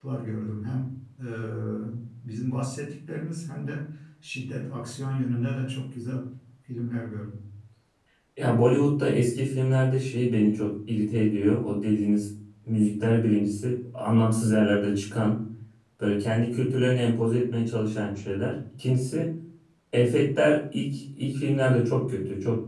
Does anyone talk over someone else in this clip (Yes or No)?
No